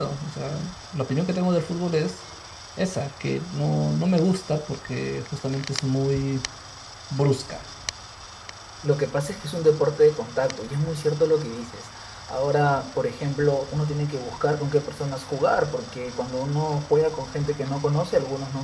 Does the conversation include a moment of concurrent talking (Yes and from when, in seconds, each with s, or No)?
No